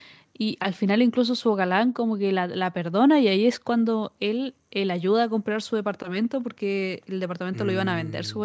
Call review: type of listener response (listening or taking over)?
listening